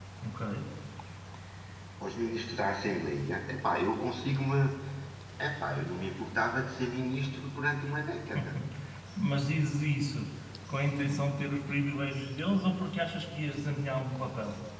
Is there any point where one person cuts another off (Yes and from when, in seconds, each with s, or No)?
No